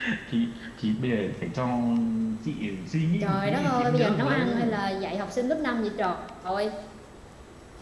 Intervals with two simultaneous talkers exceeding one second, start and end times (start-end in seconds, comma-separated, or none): 3.2-4.8